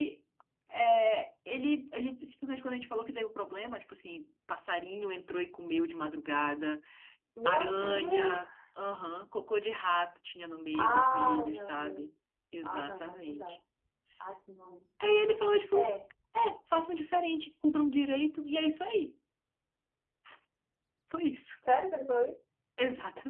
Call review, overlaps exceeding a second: present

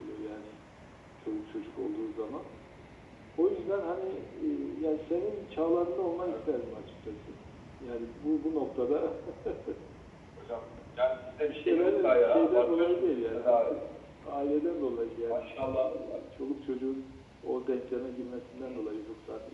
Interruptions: present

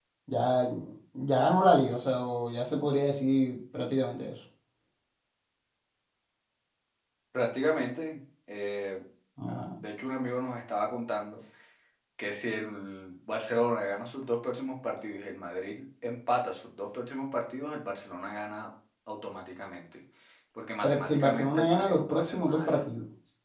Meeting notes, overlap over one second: present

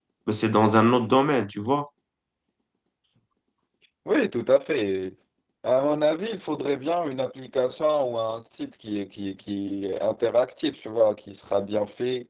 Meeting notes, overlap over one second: none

